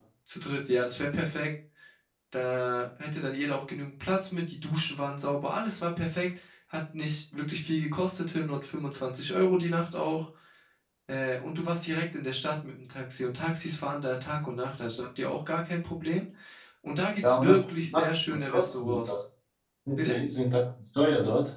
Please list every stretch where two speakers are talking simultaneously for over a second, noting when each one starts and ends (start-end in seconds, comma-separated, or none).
17.2-19.0